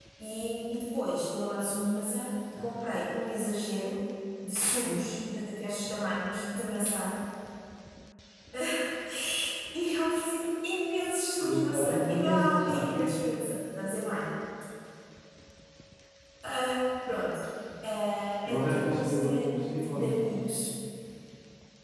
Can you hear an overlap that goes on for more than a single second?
Yes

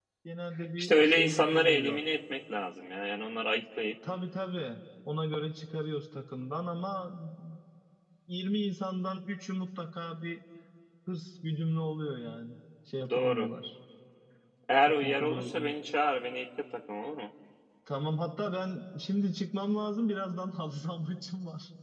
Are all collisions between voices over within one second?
No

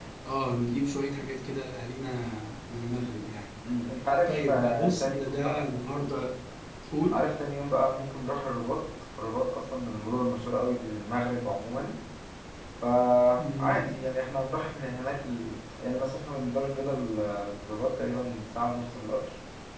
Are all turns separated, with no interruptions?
No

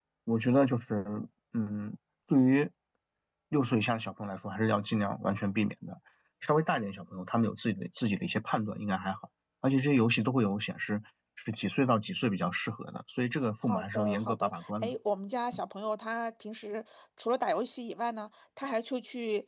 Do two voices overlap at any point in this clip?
Yes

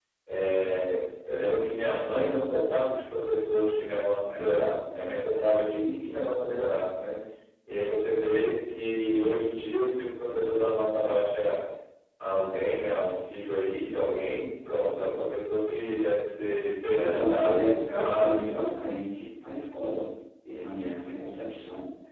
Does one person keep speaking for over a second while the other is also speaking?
Yes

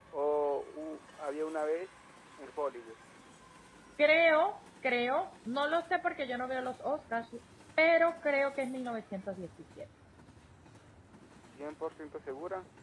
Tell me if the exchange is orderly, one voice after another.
Yes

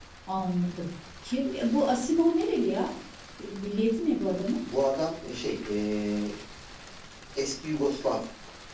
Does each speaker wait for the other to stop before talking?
Yes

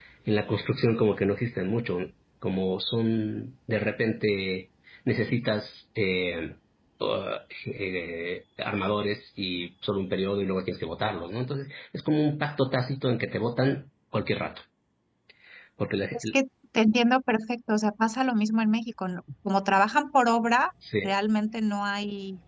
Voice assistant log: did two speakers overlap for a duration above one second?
No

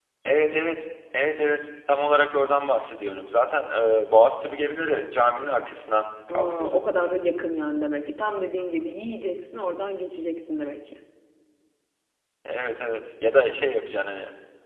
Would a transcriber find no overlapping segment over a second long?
Yes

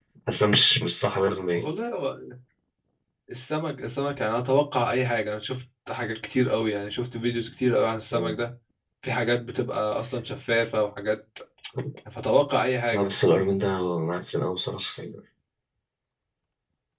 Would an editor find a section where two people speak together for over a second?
No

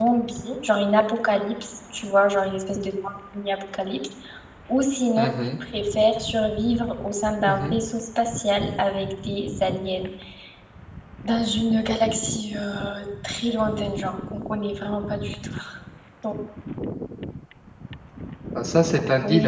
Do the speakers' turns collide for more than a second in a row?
No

